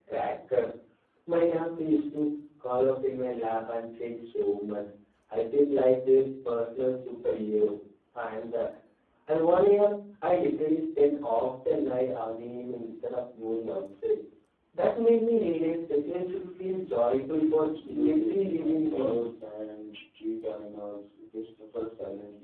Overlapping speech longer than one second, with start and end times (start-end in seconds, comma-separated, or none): 17.8-19.3